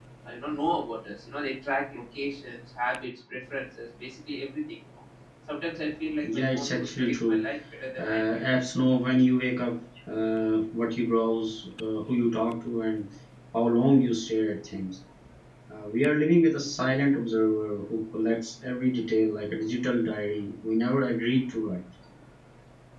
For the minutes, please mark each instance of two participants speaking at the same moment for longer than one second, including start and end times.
6.2-7.5

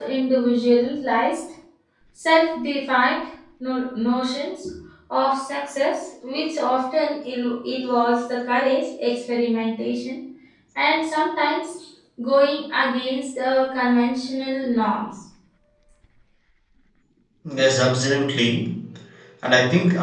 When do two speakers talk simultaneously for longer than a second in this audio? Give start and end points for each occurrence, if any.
none

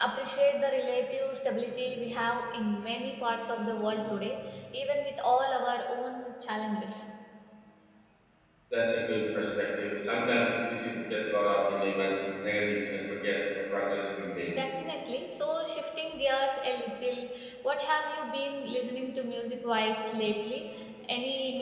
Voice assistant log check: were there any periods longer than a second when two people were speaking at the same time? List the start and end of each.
none

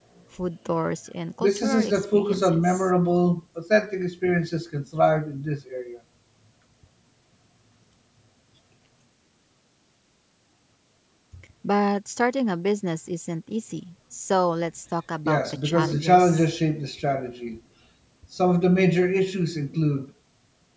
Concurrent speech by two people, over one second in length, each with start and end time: 1.4-2.9, 15.2-16.4

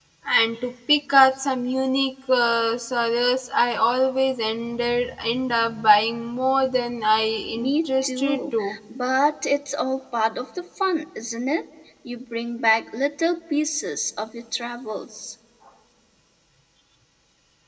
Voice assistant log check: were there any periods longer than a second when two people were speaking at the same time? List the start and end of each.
7.5-8.8

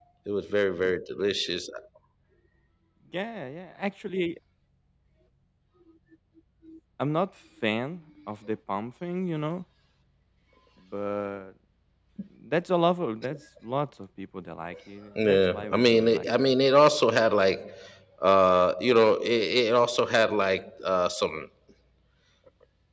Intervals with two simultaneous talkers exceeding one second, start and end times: 15.2-16.5

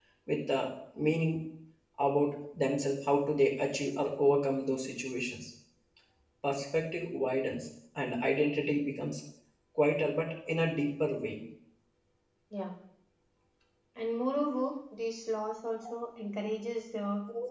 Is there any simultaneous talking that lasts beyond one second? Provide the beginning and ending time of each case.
none

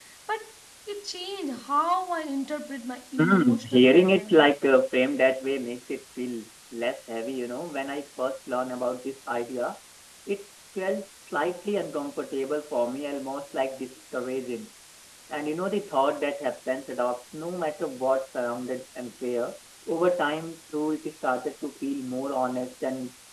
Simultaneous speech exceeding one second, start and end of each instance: 3.2-4.4

